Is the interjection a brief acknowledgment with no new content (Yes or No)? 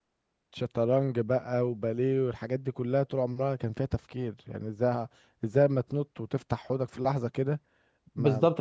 No